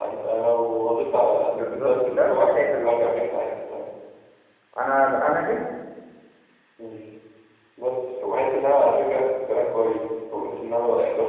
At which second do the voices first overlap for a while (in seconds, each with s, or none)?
1.5 s